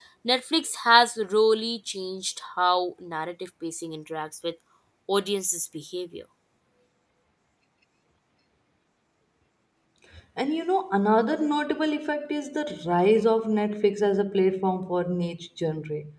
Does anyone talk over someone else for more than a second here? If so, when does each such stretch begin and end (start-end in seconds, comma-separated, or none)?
none